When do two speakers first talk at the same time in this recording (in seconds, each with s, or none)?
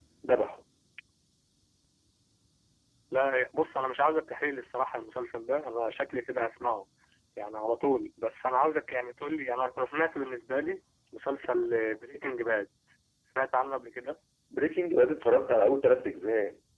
none